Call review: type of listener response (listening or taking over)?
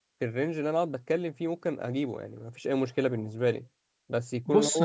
taking over